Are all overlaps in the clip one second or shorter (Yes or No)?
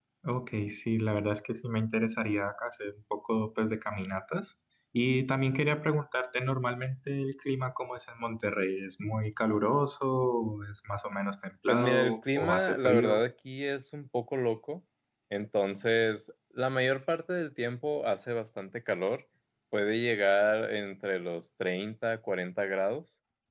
No